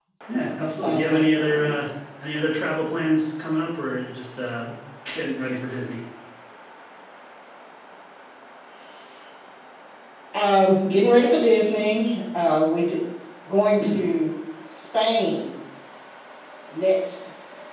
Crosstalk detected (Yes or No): Yes